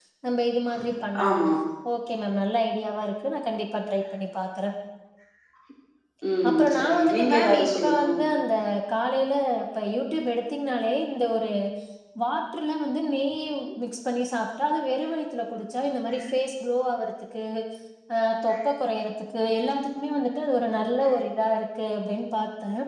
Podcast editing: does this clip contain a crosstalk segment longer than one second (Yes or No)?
Yes